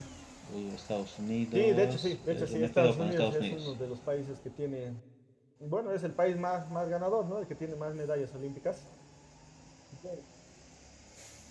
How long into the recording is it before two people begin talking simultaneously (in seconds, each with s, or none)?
1.5 s